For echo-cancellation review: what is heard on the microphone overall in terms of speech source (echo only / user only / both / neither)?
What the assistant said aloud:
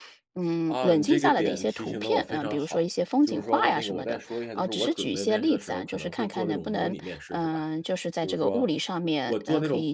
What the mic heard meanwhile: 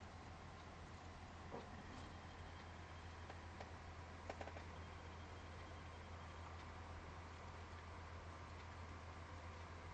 neither